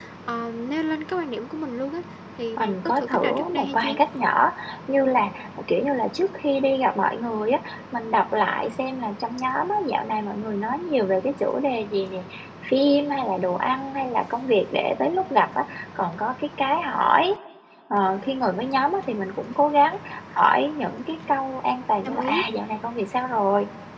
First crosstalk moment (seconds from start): 3 s

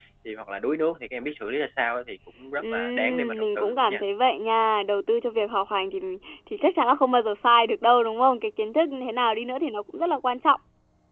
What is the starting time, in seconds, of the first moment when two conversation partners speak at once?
3 s

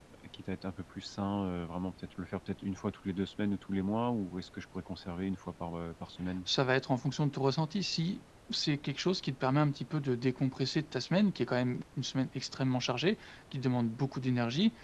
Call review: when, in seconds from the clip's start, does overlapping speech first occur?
none

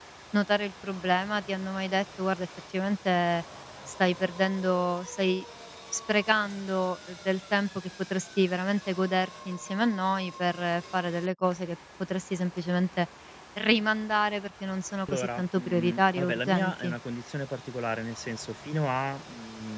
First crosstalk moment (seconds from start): 15 s

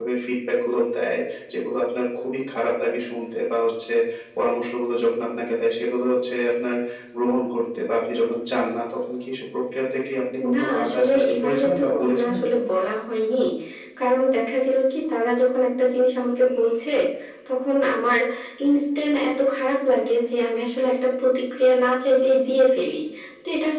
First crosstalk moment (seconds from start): 10 s

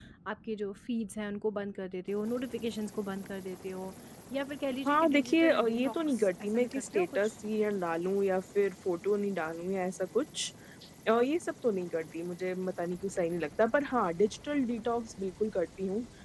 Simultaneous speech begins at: 5 s

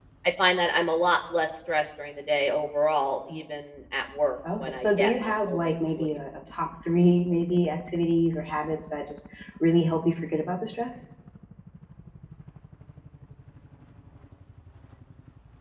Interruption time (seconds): 4 s

